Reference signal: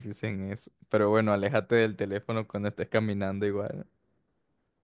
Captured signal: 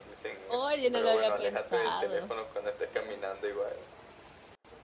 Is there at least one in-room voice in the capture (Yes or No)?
Yes